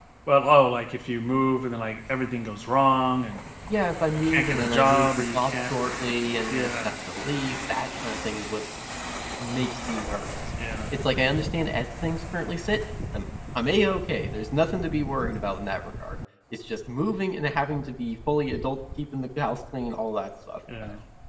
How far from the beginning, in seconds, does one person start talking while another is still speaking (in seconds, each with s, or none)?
4.2 s